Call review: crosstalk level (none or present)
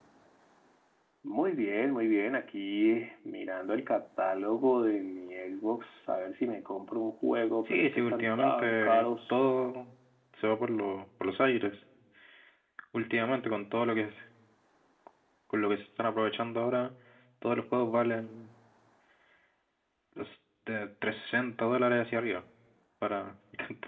present